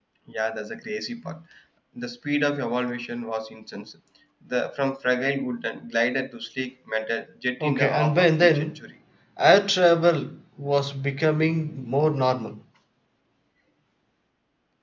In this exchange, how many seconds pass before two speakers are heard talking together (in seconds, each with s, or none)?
7.6 s